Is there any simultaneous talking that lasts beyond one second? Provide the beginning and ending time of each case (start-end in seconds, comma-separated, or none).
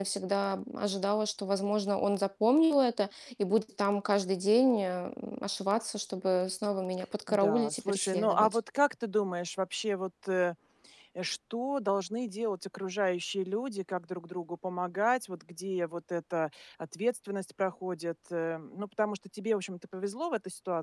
7.3-8.6